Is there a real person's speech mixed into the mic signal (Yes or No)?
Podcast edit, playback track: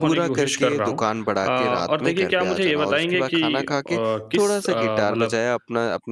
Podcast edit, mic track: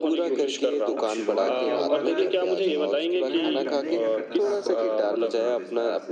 Yes